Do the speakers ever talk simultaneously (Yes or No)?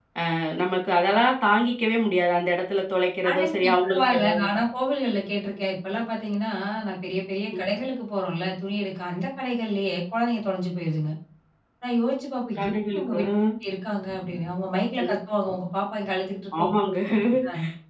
Yes